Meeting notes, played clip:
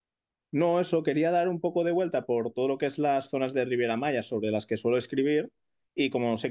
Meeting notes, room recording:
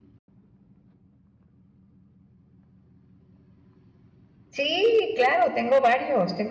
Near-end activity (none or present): present